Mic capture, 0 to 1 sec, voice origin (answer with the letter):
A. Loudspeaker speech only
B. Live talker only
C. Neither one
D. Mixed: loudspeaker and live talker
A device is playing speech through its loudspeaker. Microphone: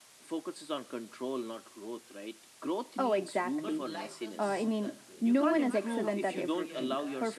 A